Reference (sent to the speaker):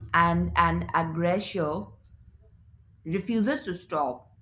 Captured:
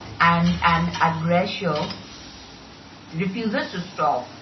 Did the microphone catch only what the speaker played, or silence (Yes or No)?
Yes